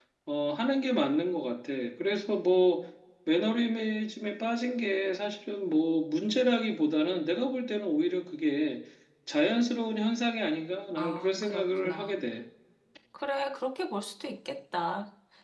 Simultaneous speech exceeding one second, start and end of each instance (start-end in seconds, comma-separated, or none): 11.0-12.2